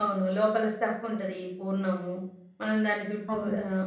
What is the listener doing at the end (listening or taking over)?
listening